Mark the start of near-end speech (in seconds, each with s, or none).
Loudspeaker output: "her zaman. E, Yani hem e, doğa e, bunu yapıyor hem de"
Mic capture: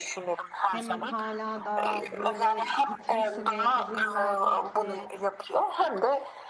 0.7 s